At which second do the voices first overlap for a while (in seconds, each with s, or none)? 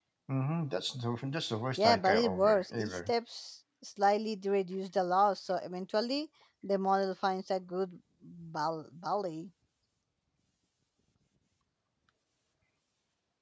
1.8 s